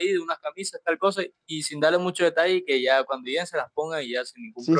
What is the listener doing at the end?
taking over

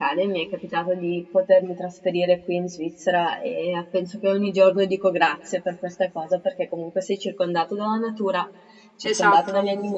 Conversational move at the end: listening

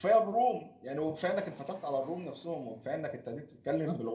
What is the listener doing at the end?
listening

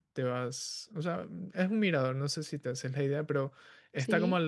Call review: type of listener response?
listening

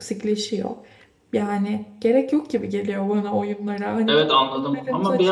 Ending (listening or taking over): taking over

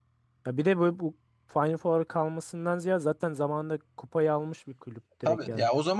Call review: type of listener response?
taking over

